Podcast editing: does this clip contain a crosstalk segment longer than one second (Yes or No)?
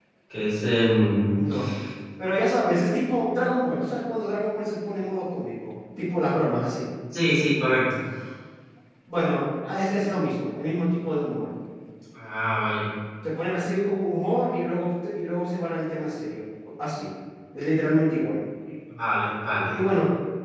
No